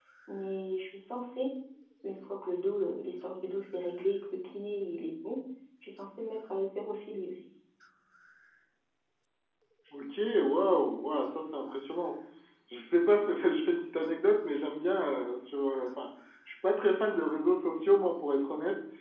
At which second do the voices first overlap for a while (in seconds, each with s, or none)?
none